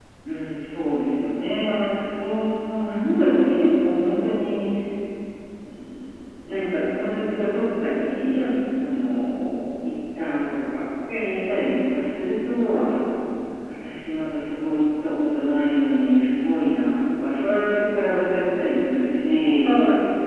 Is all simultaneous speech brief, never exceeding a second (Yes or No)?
Yes